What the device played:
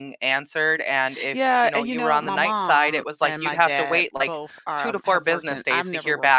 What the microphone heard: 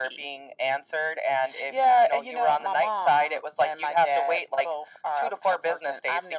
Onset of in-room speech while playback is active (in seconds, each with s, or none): none